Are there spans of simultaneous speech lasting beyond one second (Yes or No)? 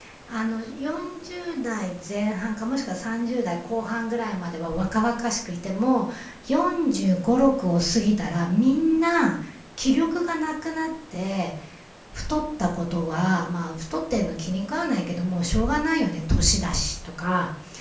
No